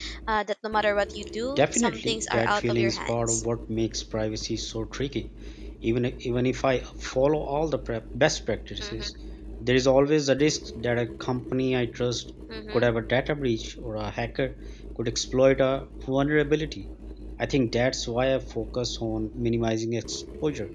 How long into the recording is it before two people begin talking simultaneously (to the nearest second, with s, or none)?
2 s